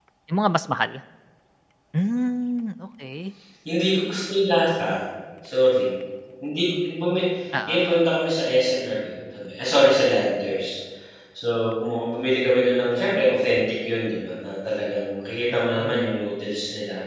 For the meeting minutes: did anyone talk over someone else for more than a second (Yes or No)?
No